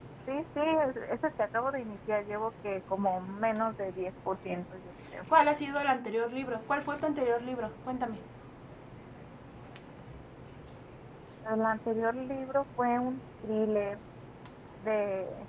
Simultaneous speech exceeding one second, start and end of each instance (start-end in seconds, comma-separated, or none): none